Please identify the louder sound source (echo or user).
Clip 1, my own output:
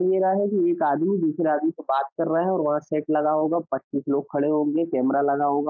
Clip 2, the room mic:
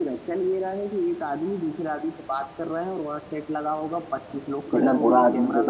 user